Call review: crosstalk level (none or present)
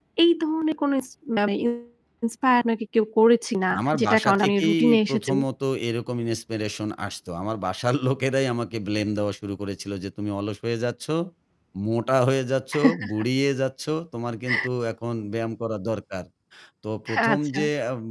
present